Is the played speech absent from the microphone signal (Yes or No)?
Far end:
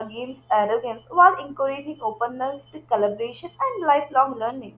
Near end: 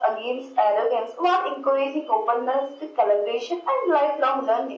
No